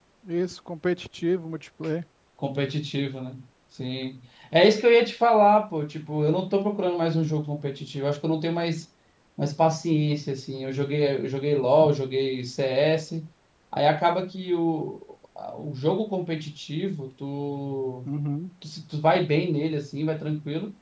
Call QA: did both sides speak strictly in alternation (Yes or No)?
Yes